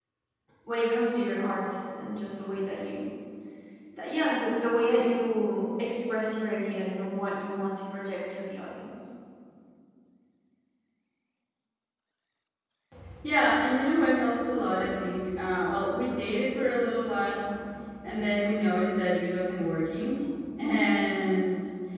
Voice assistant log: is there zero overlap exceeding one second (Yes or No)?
Yes